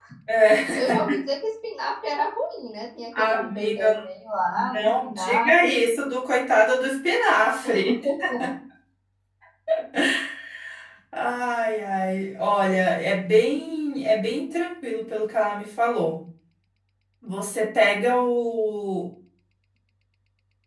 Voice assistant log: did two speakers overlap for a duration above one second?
Yes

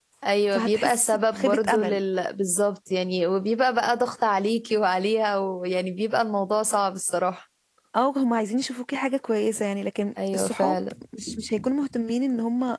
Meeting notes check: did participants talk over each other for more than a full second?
Yes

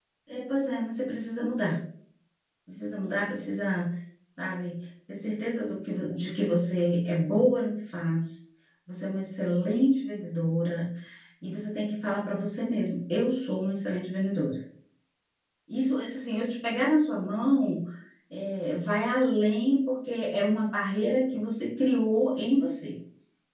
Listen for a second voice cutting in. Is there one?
No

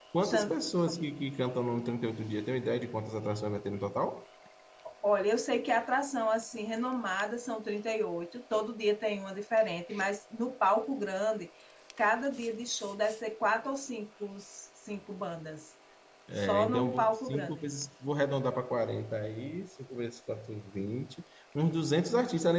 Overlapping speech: Yes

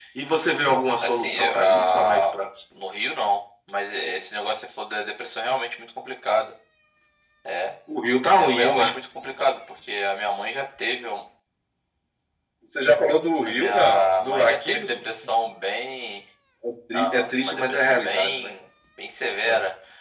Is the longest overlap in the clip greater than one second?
Yes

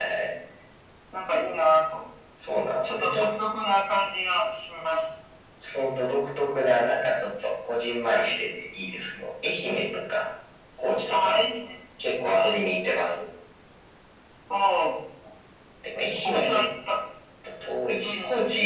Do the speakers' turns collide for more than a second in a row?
No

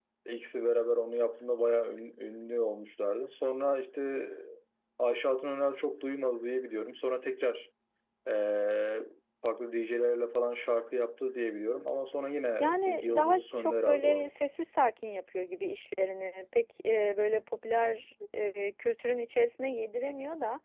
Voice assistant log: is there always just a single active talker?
No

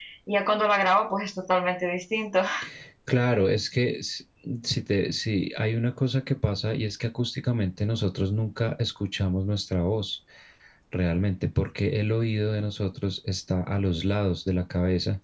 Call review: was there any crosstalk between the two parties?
No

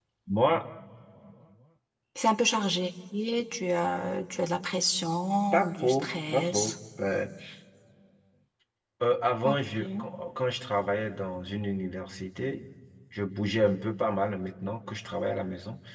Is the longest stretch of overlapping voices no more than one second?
No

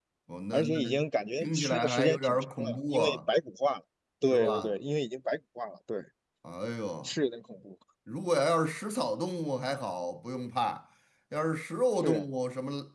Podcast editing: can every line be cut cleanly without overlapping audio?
No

